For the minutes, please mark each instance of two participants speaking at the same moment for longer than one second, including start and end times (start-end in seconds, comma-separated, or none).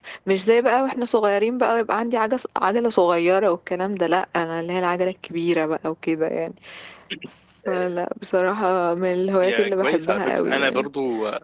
9.4-10.9